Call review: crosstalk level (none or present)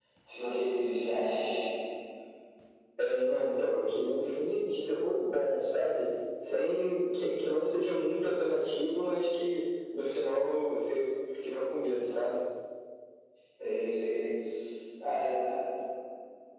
none